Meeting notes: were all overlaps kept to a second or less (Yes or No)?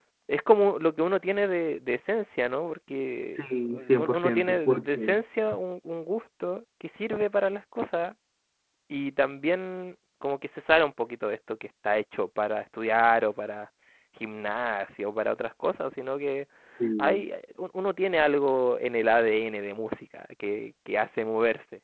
No